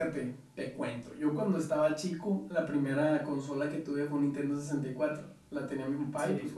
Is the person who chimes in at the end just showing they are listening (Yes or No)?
Yes